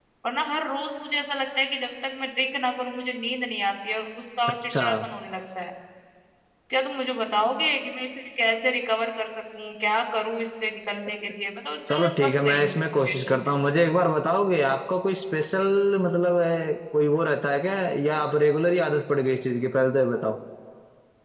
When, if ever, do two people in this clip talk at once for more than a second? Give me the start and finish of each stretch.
11.9-13.5

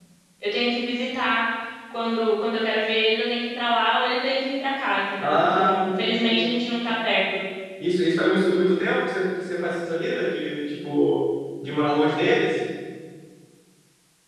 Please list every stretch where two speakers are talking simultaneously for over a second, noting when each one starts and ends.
5.2-6.4

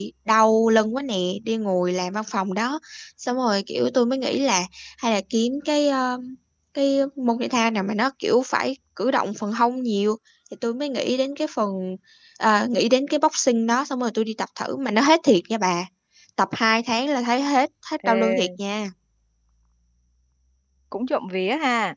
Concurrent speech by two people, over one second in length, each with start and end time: none

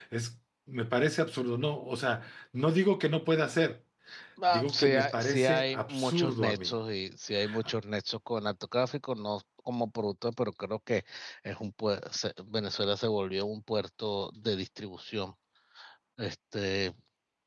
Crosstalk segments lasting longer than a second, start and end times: 4.5-6.7

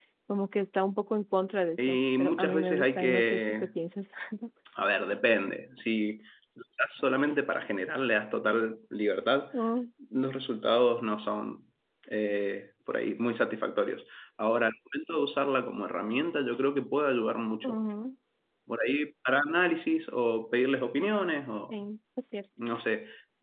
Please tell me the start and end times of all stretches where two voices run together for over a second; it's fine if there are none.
1.8-3.7

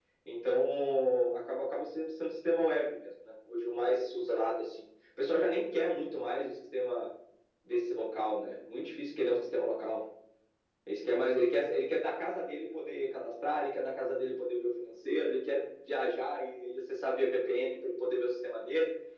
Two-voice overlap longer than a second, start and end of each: none

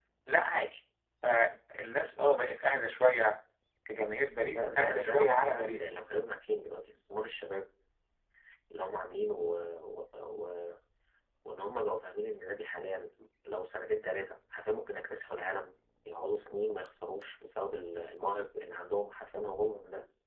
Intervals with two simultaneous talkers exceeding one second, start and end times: 4.5-6.1

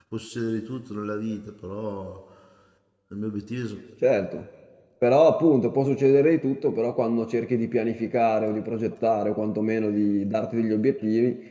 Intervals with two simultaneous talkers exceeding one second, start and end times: none

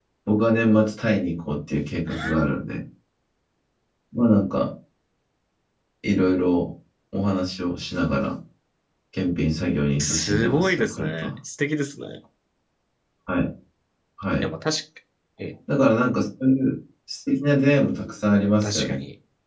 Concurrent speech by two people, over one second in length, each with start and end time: 10.0-11.3

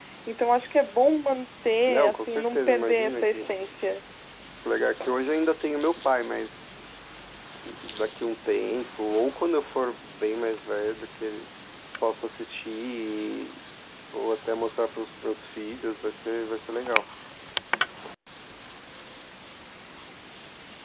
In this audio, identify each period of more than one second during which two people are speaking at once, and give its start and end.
1.9-3.4

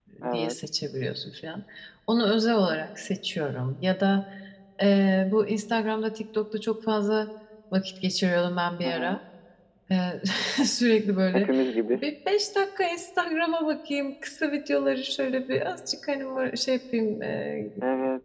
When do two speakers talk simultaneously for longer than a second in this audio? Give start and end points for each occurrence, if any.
none

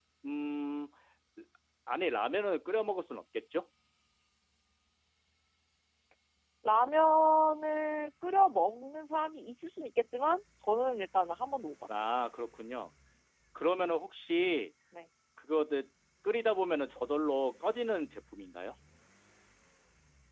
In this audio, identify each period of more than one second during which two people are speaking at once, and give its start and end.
none

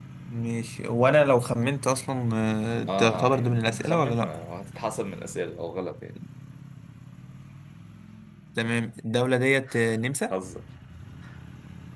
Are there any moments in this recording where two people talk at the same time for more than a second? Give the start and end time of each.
2.9-4.3

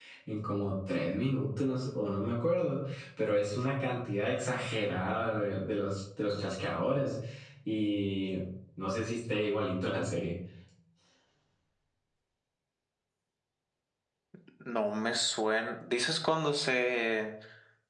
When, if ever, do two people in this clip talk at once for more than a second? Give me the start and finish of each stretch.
none

